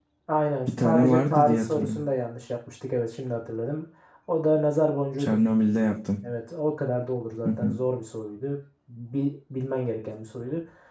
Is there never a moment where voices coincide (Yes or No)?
No